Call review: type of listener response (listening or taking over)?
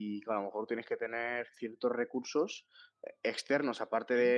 listening